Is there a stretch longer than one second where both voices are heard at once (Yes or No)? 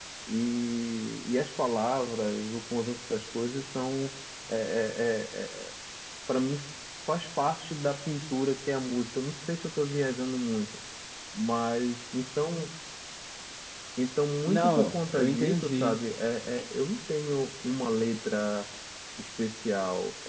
Yes